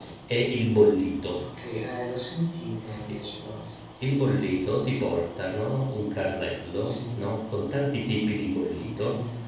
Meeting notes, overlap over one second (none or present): none